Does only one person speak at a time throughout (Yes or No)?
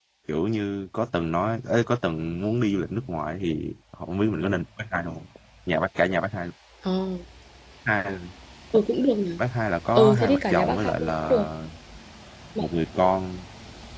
No